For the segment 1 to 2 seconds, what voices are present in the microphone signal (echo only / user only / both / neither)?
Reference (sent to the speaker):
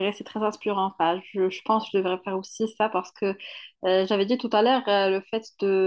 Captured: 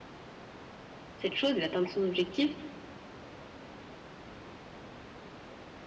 user only